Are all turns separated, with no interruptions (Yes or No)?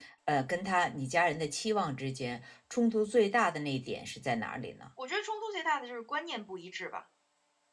Yes